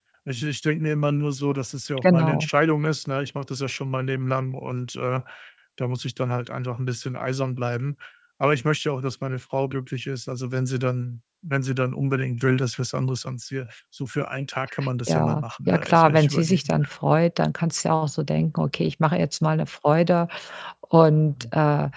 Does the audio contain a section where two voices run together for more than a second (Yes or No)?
Yes